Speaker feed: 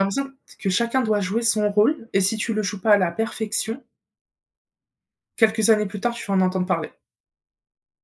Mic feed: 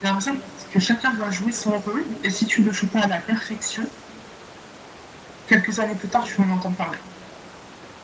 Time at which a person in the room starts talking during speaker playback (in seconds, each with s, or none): none